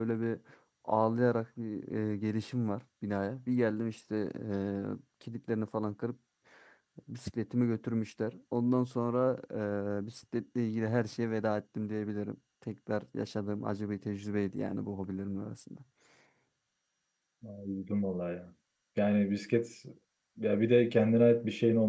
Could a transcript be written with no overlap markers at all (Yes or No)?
Yes